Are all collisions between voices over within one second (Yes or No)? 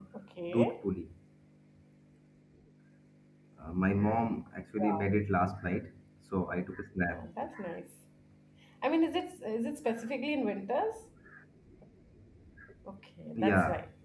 Yes